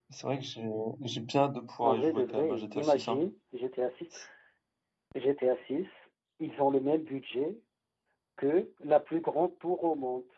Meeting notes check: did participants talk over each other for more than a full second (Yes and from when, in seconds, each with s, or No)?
Yes, from 1.8 s